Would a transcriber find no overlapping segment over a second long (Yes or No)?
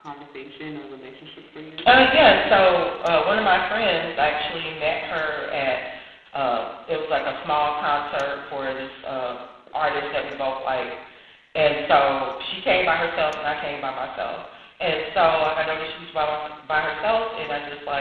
Yes